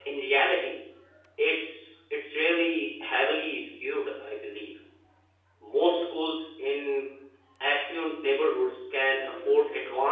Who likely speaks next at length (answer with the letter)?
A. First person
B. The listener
A